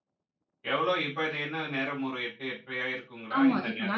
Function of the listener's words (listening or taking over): taking over